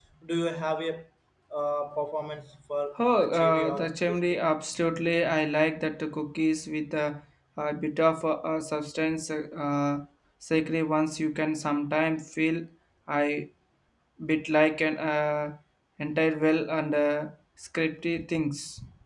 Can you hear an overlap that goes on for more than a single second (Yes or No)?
Yes